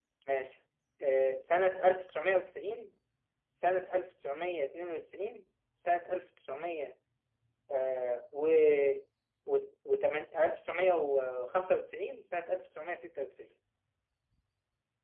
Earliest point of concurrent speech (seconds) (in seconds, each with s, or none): none